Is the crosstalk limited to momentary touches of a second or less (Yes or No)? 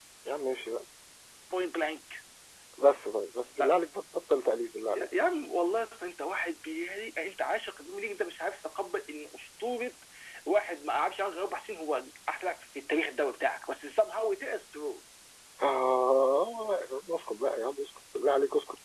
Yes